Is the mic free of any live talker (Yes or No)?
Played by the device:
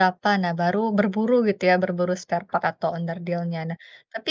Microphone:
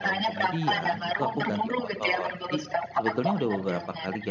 No